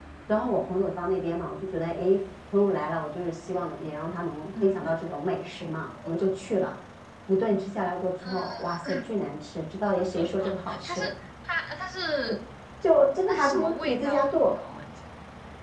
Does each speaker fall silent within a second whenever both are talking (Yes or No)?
No